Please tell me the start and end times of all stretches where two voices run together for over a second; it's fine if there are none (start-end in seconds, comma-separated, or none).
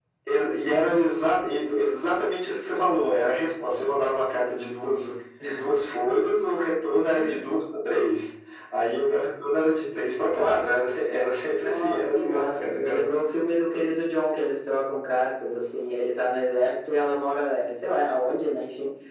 11.6-13.0